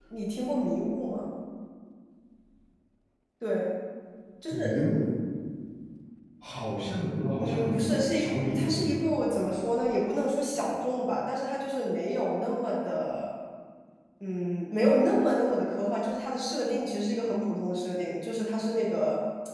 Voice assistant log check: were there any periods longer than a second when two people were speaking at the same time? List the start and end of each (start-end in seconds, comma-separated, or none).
7.4-8.9